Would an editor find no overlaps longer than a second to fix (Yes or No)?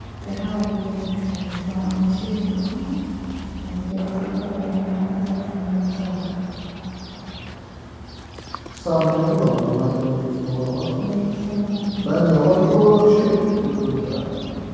Yes